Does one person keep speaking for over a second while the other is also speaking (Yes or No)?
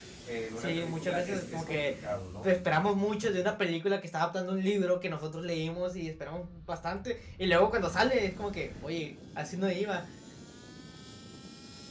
Yes